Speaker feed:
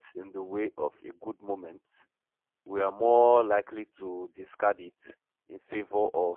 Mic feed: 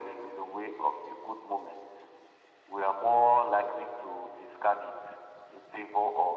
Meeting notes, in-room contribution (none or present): none